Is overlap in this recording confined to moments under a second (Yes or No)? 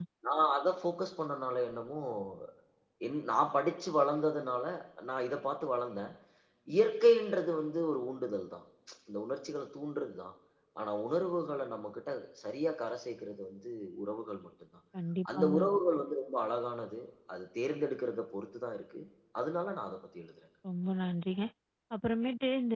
Yes